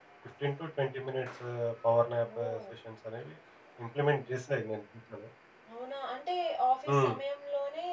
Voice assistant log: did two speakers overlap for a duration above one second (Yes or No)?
No